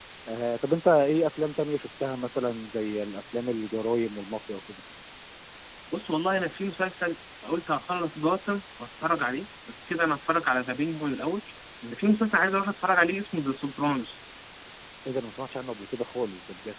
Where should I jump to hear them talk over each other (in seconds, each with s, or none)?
none